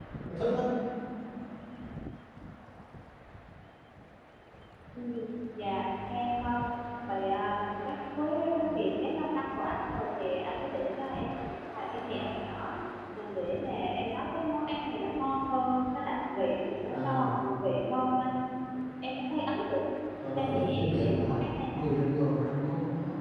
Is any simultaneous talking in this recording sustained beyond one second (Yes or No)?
Yes